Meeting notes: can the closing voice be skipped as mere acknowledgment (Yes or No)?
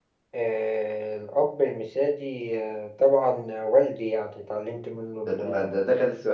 No